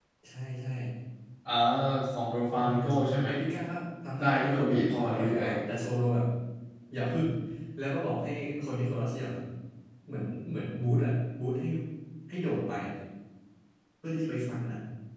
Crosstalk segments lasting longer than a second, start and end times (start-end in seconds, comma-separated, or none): 4.2-5.5